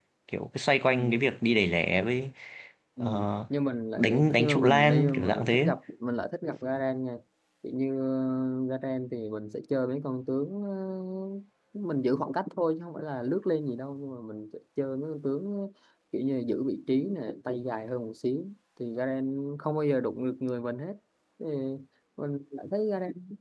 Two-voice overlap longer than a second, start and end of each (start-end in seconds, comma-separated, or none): 4.0-5.7